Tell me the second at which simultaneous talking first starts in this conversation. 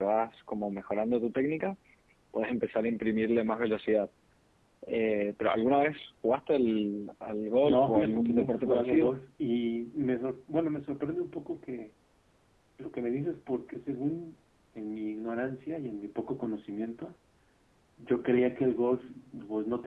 7.6 s

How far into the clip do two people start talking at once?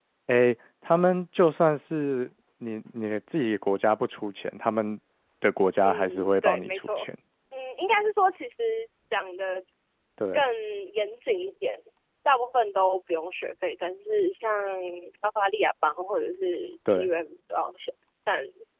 5.8 s

